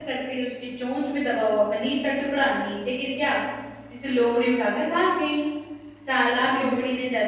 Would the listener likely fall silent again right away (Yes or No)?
Yes